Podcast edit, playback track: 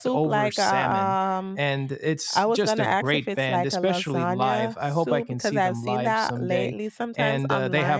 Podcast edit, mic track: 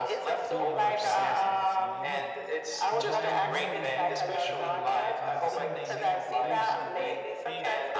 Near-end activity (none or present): present